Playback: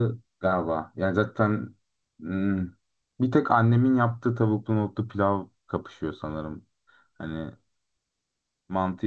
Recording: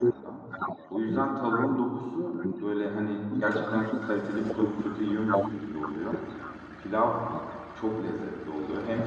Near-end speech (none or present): present